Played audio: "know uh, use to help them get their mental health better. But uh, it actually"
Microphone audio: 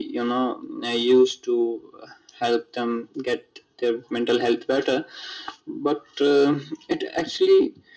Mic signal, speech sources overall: echo only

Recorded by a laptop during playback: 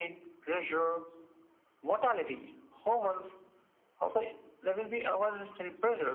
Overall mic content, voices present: echo only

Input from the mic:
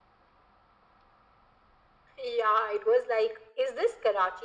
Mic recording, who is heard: echo only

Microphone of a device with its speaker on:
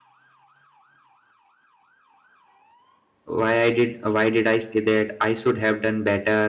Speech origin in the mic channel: user only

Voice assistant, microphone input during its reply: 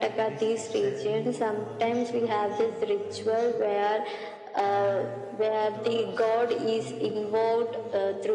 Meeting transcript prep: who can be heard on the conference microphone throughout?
both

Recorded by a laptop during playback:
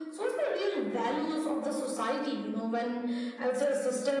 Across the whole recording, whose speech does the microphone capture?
echo only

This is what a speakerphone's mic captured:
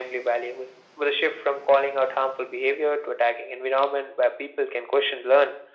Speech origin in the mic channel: echo only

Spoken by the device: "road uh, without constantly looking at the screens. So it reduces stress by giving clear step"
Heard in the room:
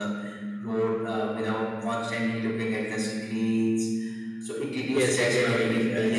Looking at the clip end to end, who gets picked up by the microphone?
both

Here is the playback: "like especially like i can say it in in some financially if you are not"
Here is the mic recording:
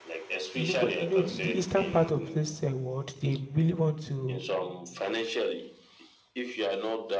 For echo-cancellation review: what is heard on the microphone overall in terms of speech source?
both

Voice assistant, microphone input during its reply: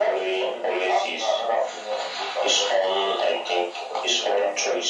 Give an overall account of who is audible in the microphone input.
echo only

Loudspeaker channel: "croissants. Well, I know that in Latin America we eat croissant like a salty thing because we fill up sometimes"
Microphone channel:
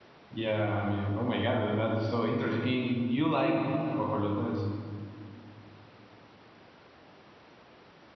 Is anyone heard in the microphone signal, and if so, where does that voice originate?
user only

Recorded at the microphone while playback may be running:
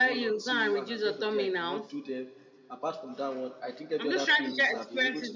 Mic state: both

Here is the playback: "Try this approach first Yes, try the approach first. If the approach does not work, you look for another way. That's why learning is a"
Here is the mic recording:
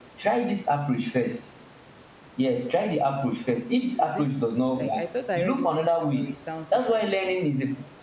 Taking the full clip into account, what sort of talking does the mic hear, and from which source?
both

